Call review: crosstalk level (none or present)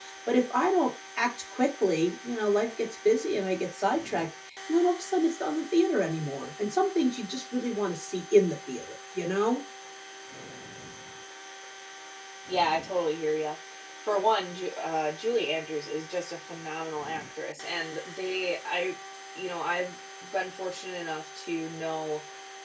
none